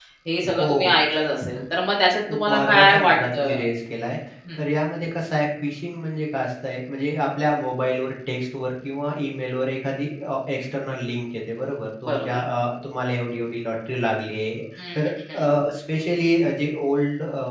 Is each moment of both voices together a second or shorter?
No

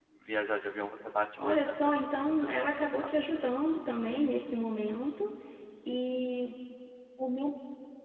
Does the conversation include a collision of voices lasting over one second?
Yes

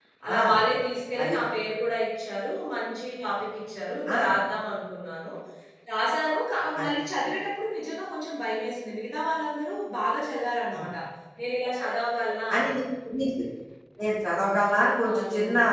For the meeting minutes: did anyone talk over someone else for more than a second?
No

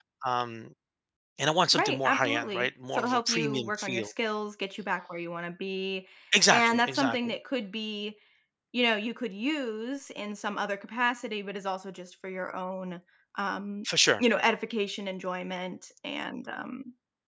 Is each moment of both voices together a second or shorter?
No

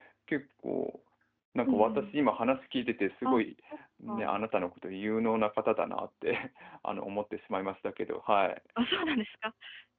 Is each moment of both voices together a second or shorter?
Yes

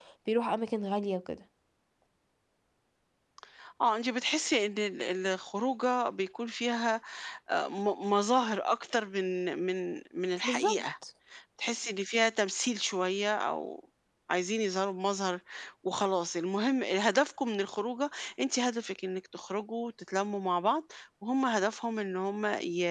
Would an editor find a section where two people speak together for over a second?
No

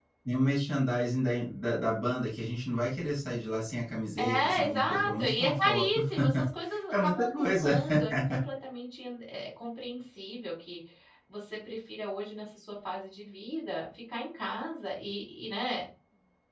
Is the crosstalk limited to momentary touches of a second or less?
No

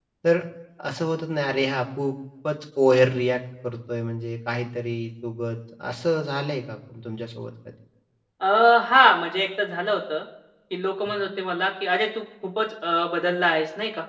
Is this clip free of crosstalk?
Yes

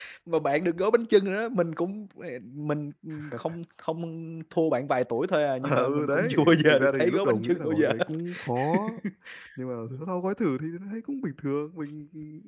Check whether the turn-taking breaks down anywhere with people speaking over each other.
Yes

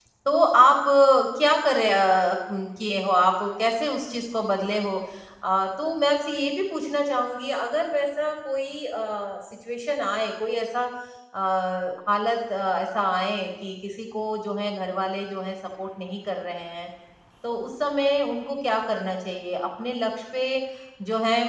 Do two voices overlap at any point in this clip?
No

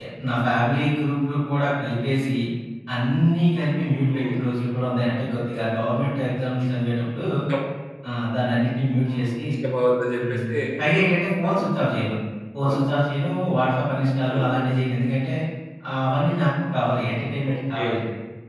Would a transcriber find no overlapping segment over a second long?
Yes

